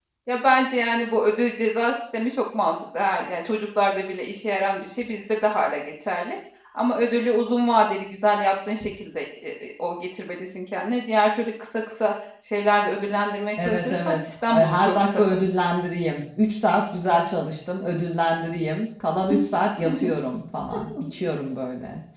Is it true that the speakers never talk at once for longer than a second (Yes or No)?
No